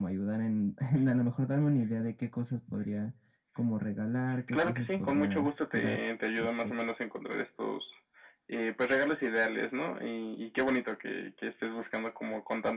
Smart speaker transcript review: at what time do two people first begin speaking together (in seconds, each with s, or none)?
4.5 s